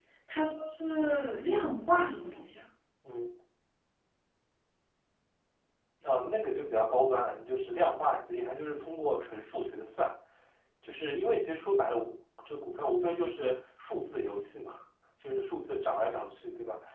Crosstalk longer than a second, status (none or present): none